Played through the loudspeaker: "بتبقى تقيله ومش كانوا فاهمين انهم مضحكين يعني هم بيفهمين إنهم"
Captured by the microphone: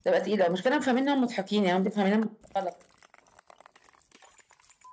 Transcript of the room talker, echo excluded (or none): none